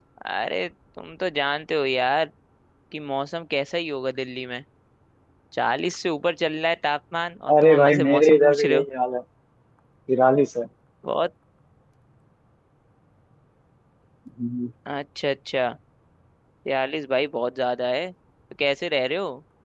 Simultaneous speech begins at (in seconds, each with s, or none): 7.5 s